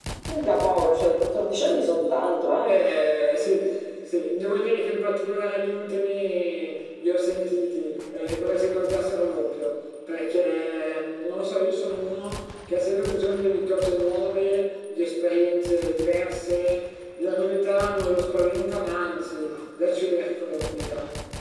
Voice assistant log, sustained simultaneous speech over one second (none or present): none